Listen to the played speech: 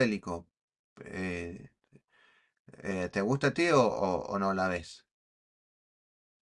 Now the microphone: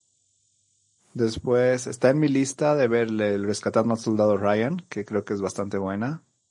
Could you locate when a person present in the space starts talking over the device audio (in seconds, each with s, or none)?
1.1 s